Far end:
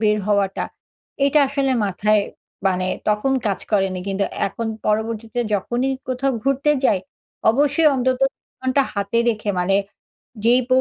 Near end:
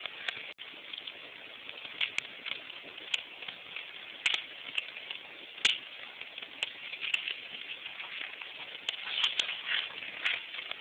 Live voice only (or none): none